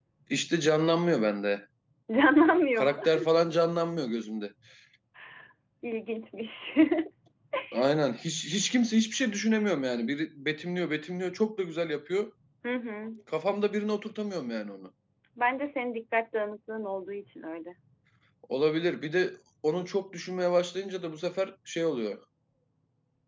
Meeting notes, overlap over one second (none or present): none